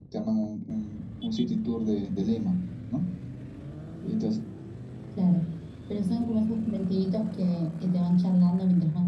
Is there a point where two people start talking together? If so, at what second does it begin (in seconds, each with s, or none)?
none